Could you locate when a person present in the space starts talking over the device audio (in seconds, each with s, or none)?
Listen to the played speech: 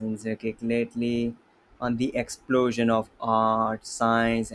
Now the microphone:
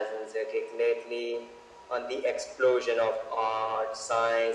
none